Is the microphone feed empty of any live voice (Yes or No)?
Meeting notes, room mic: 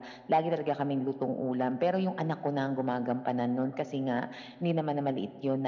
Yes